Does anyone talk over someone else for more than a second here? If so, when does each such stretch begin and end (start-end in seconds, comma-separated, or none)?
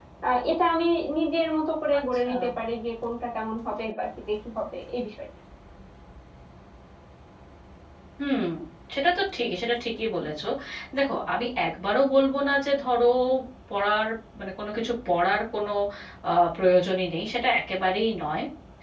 none